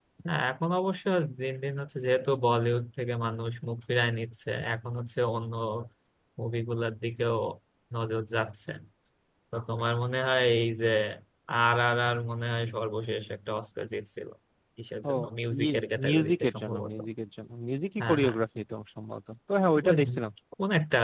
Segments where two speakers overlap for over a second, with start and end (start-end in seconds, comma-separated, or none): 15.6-16.9